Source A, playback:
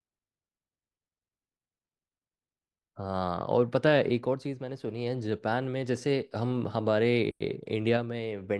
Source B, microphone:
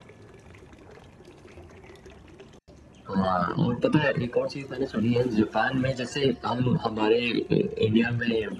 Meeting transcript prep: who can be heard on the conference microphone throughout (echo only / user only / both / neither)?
echo only